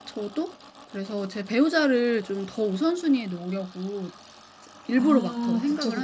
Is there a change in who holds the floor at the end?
Yes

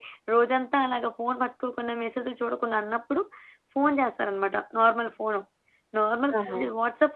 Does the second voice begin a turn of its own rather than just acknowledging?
No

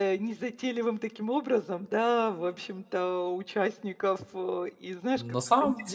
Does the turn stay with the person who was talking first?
No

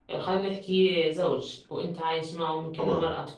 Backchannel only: Yes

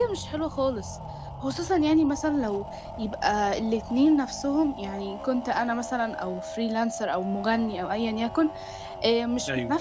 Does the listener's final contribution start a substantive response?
No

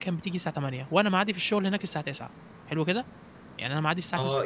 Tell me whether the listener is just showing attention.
No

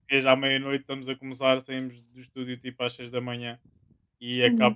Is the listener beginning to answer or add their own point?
No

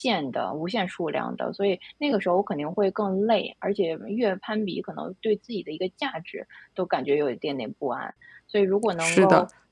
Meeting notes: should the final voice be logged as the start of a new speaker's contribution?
No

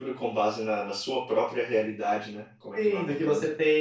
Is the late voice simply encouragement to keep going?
No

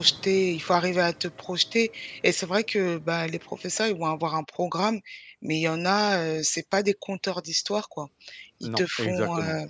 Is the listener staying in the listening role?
Yes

